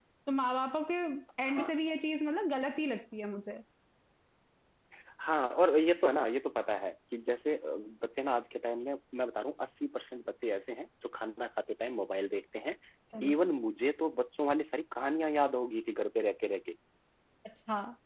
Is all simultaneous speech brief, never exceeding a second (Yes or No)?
Yes